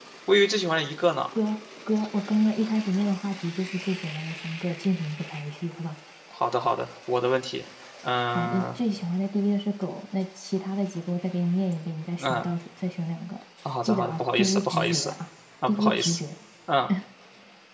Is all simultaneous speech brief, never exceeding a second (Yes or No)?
No